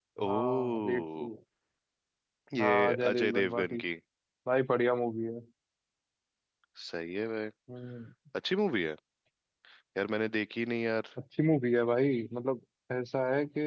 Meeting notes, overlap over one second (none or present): present